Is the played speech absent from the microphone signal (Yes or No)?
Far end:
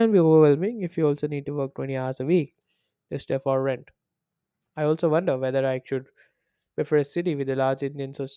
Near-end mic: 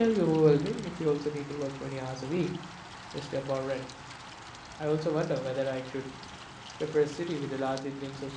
No